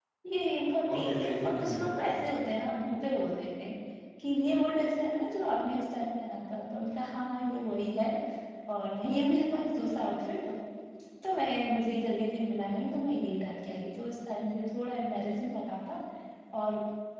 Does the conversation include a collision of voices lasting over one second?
Yes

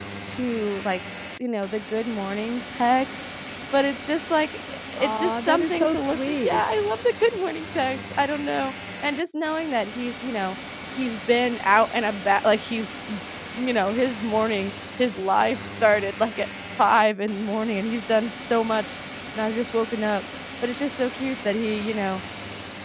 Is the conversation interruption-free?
No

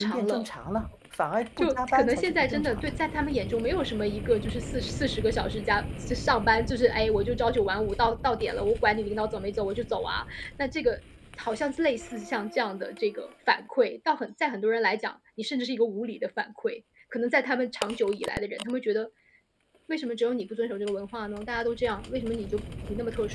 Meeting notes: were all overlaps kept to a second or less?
No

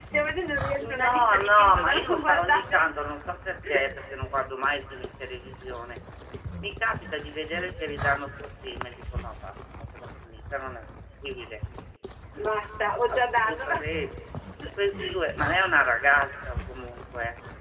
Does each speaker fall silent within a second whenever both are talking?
No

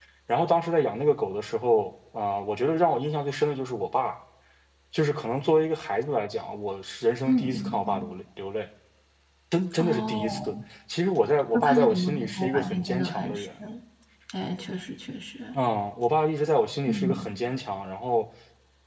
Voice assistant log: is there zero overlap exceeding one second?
No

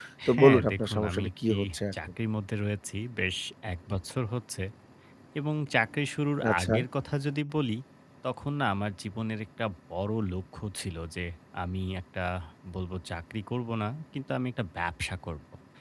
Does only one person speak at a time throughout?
No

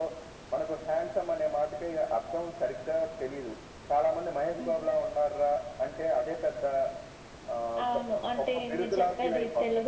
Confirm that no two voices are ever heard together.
No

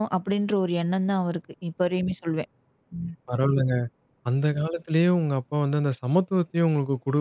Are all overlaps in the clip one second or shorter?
Yes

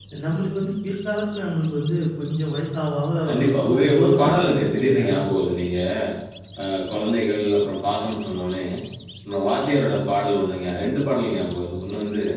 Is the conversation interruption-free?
No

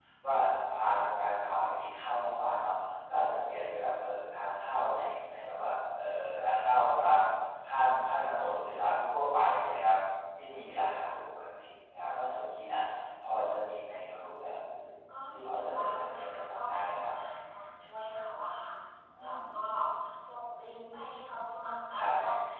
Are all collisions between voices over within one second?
No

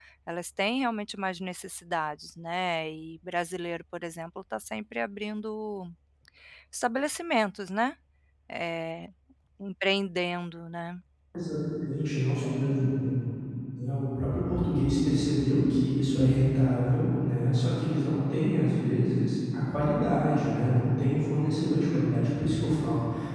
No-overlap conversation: Yes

